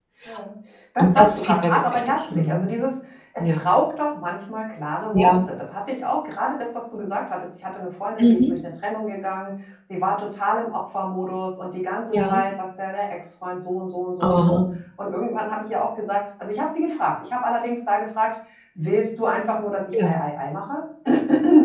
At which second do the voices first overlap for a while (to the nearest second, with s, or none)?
1 s